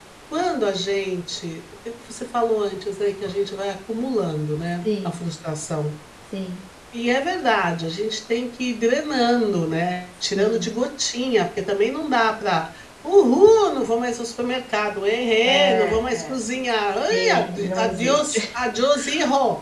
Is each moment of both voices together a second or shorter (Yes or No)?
No